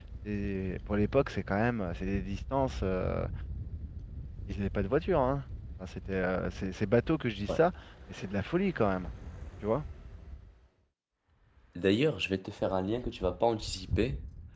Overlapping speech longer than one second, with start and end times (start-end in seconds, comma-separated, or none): none